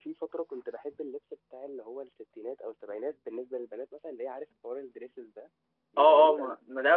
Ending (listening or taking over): taking over